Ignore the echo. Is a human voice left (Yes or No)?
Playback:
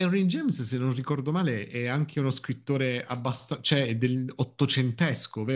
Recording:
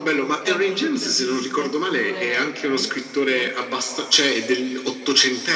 Yes